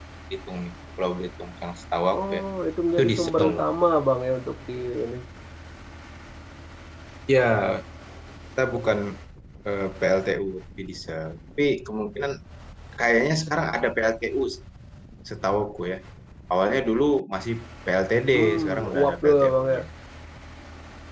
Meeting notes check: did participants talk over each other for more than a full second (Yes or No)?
Yes